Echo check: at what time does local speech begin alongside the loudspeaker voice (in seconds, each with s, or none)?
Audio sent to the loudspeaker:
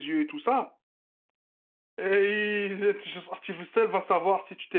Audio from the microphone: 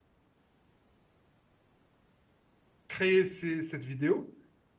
2.9 s